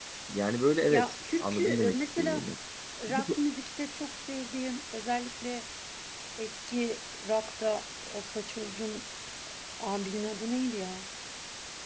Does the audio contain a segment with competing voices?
Yes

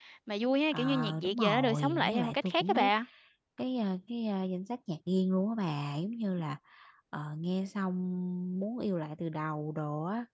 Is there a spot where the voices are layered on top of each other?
Yes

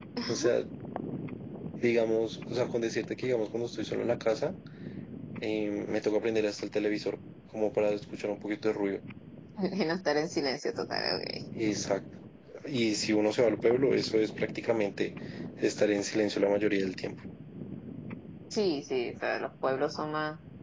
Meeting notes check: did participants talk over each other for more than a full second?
No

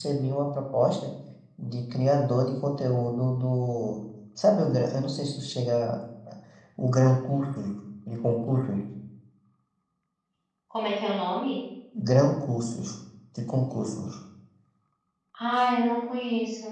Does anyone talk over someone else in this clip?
No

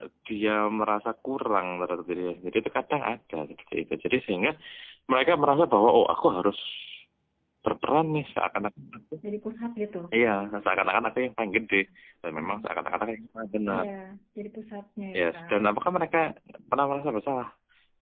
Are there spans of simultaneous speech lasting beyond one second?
No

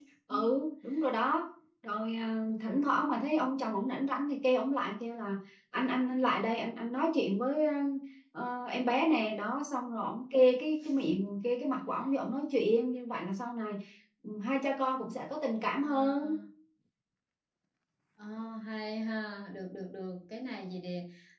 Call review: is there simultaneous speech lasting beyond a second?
No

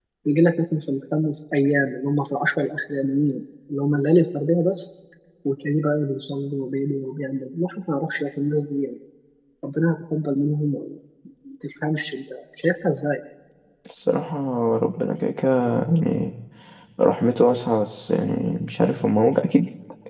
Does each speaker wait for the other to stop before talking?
Yes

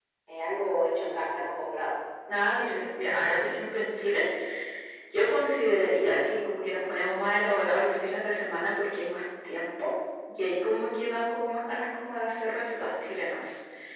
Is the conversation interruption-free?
Yes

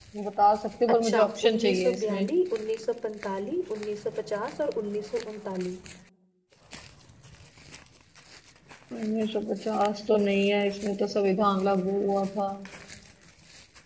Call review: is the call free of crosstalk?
No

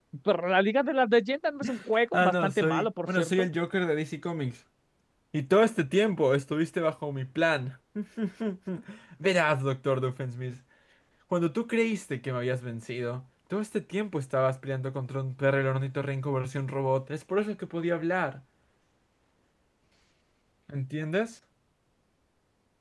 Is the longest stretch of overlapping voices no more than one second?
No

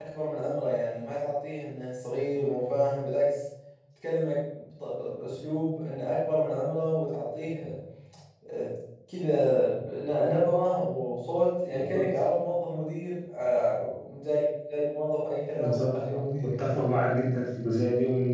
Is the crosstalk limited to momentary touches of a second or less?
No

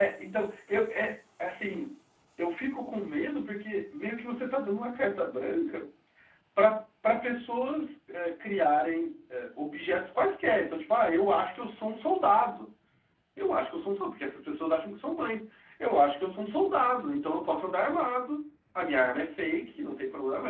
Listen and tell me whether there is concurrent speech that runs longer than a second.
No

